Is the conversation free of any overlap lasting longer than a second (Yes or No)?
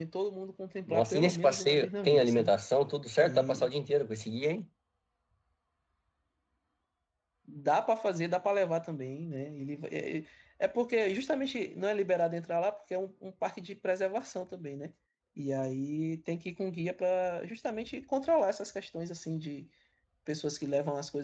No